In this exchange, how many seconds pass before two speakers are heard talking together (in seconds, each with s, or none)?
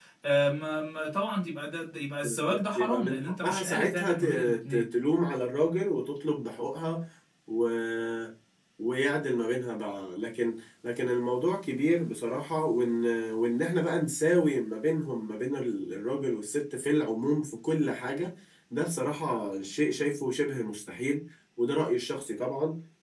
2.2 s